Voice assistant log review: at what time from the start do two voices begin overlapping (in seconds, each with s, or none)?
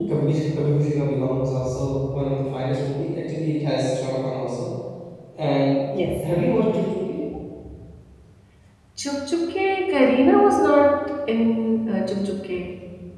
none